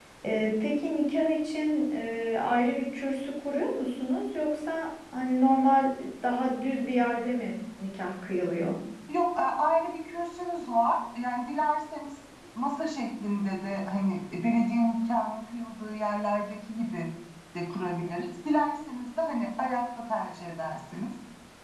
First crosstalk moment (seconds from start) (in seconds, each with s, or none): none